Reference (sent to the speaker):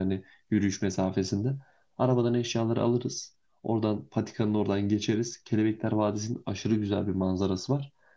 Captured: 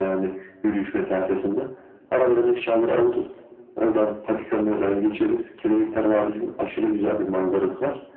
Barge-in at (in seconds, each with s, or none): none